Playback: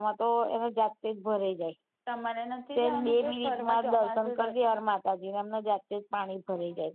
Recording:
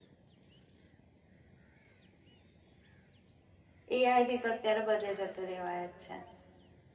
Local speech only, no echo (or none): એઆઈથી તો અત્યારે બધે જતું રેવાય જ છે.